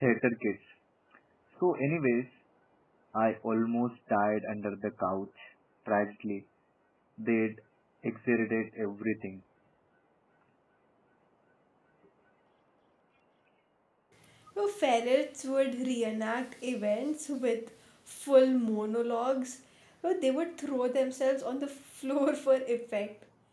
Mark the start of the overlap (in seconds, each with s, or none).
none